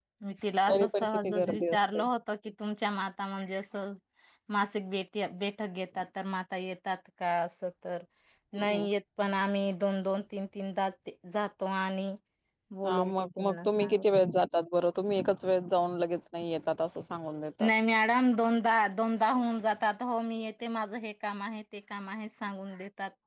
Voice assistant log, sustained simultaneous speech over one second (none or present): present